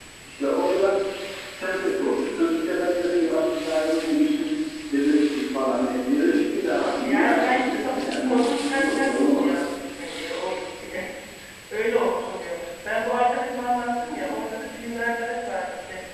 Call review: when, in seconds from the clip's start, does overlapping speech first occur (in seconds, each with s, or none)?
7.0 s